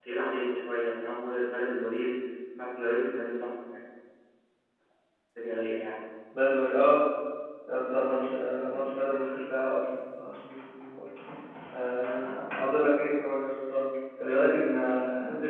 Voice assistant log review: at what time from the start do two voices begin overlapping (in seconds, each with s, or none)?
none